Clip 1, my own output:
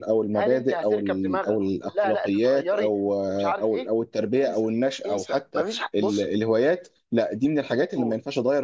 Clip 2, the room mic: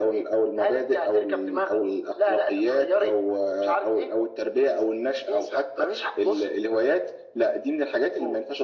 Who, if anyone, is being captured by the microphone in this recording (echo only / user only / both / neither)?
echo only